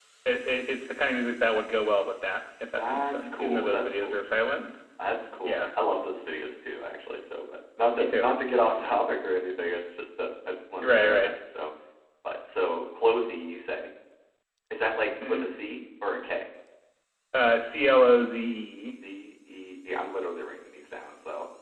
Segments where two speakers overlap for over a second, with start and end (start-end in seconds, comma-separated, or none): 2.8-4.2